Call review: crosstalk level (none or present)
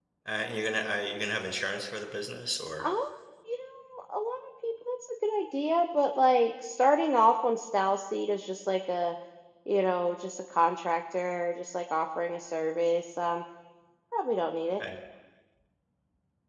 none